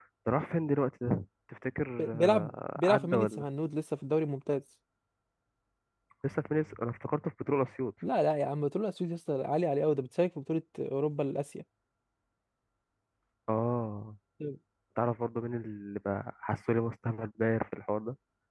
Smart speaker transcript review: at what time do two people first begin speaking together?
2.0 s

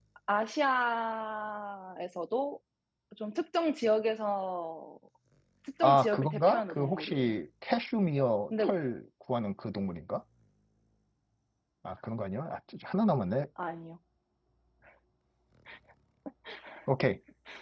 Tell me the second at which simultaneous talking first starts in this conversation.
5.8 s

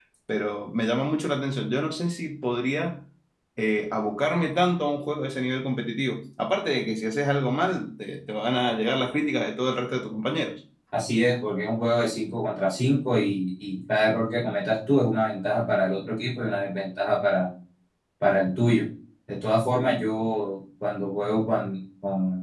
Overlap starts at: none

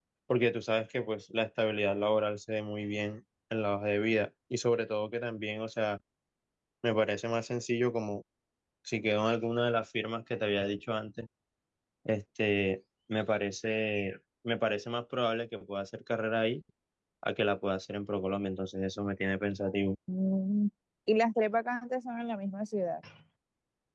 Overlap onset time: none

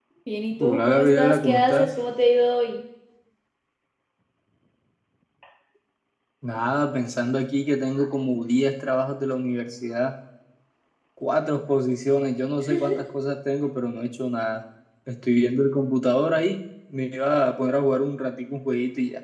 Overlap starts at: 0.6 s

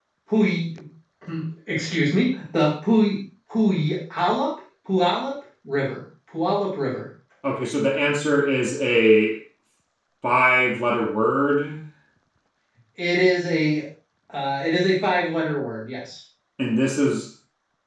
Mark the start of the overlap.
none

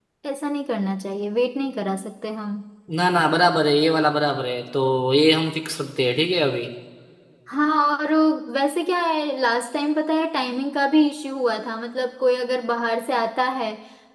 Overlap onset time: none

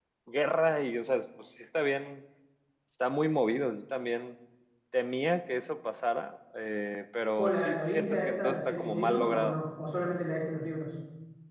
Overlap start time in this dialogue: 7.4 s

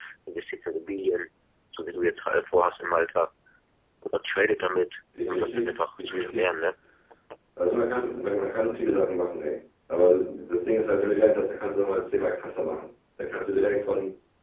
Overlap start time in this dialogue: 5.2 s

